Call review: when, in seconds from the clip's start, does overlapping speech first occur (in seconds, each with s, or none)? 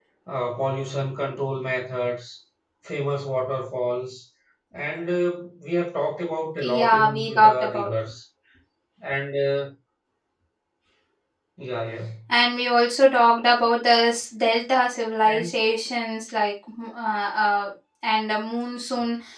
6.6 s